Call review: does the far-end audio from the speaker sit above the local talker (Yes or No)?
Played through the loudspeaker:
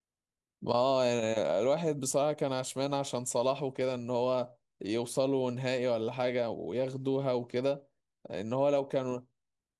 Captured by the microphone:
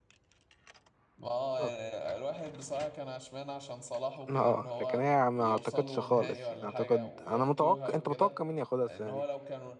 No